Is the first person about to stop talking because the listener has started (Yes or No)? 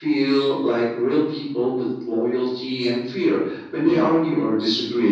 No